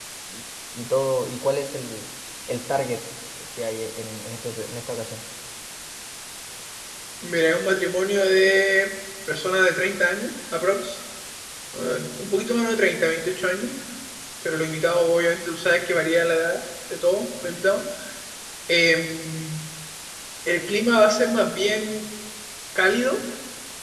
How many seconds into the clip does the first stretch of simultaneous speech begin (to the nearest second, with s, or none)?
none